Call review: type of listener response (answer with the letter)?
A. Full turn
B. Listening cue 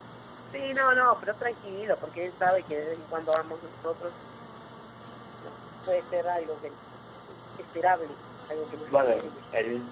A